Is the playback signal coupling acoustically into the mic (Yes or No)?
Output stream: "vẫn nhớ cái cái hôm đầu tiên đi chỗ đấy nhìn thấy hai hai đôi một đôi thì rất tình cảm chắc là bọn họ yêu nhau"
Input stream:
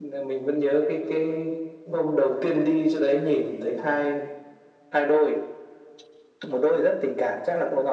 Yes